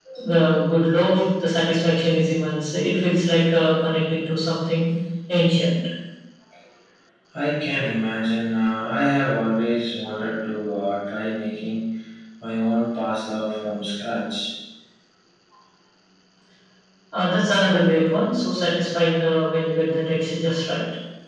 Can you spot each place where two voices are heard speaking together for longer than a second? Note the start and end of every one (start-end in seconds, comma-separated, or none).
none